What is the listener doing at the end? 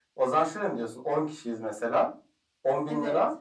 listening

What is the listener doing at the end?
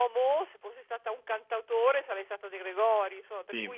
listening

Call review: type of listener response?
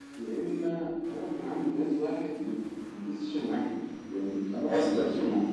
listening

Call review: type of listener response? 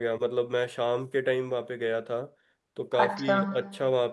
listening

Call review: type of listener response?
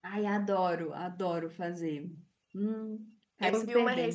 taking over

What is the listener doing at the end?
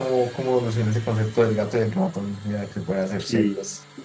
taking over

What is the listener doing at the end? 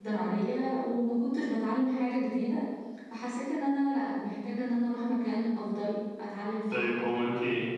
taking over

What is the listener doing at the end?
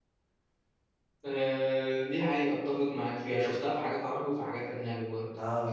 taking over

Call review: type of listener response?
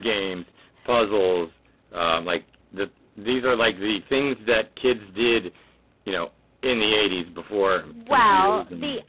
taking over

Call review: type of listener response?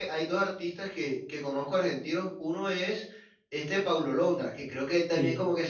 listening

